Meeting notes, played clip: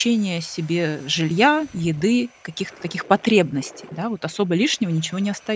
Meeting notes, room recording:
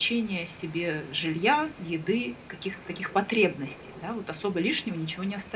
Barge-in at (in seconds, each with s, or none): none